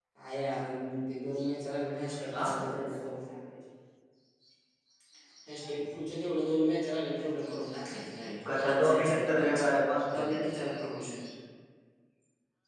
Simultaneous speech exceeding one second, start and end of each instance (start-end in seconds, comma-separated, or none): 8.5-9.7